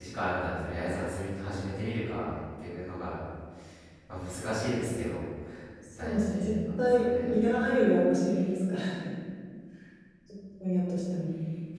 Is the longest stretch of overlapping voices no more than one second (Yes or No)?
No